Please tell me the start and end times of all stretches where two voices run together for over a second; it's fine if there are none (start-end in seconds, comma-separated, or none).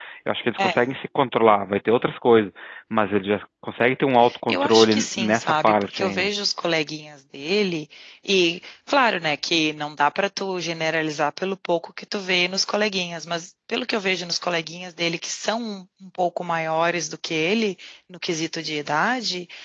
4.5-6.3